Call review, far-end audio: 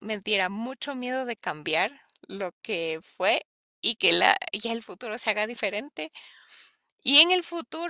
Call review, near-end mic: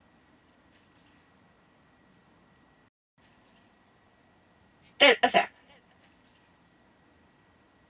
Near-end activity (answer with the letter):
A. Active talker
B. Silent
A